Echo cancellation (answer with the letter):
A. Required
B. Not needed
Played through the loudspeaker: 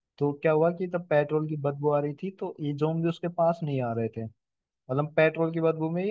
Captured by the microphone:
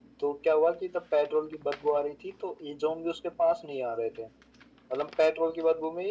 A